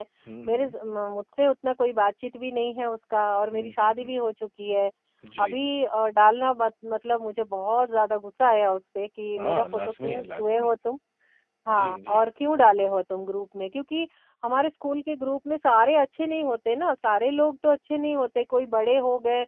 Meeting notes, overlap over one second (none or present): present